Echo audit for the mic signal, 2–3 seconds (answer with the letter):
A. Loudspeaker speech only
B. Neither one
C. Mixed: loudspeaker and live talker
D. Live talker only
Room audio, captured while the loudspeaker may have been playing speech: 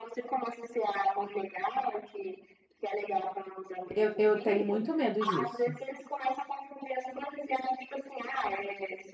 A